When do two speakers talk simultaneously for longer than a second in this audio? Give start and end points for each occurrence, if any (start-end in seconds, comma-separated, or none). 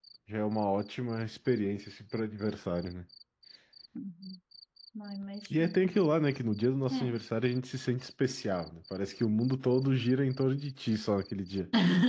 none